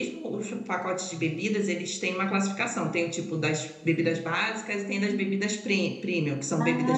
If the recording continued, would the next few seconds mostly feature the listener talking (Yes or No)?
Yes